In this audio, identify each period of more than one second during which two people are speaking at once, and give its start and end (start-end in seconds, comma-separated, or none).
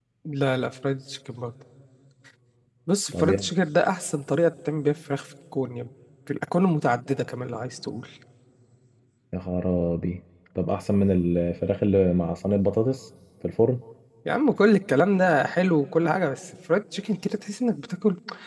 none